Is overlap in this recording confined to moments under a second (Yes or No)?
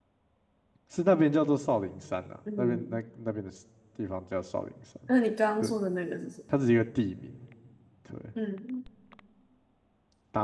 Yes